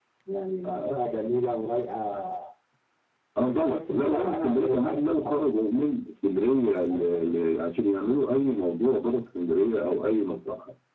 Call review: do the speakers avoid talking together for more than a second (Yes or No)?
No